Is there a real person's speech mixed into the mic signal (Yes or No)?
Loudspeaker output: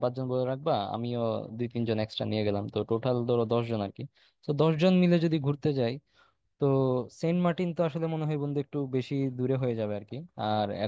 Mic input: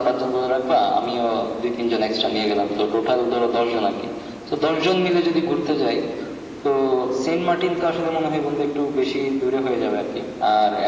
No